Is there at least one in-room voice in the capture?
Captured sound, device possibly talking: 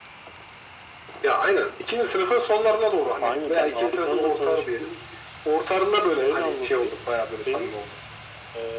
No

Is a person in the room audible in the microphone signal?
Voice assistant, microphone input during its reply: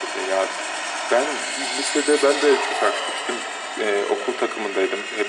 No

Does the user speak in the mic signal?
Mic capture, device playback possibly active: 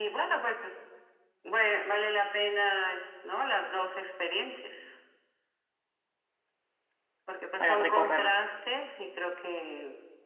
Yes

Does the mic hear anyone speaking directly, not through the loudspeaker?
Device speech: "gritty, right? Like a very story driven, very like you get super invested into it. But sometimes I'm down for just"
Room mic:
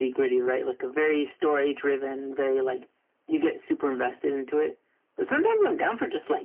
No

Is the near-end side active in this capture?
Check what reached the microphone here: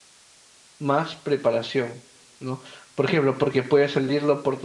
Yes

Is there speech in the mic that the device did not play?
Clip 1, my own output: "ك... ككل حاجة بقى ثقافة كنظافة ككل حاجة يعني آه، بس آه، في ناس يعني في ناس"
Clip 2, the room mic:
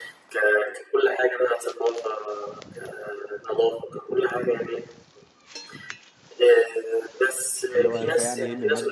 Yes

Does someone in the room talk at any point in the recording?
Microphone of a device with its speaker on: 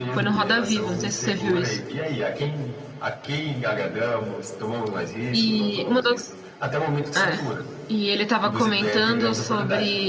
Yes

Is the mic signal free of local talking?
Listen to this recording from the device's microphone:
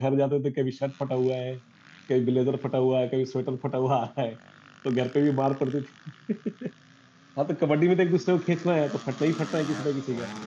No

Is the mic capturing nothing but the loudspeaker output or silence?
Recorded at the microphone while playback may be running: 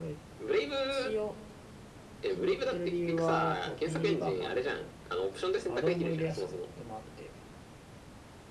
No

